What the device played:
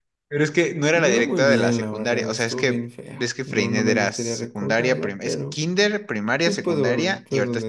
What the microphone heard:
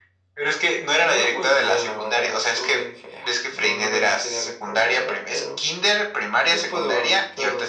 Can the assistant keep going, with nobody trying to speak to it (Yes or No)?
Yes